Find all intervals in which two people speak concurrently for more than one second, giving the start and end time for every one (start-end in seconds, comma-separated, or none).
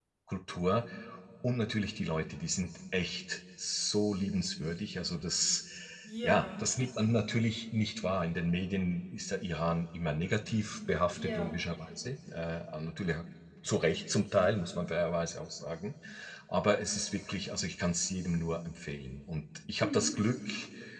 none